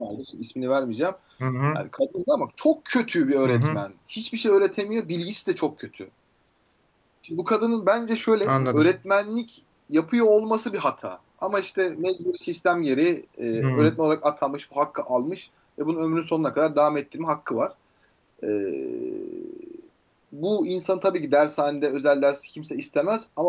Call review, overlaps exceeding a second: none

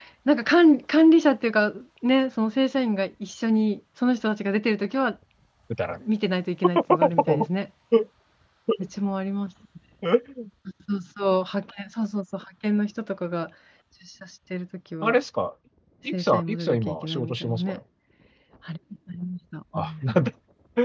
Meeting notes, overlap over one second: present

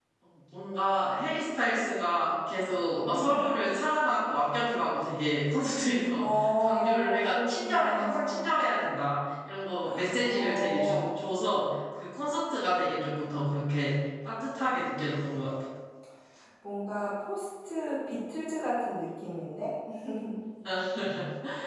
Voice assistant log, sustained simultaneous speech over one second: present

